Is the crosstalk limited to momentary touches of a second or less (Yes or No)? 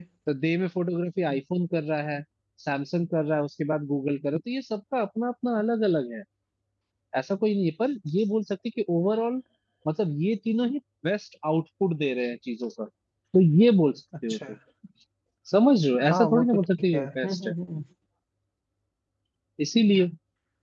No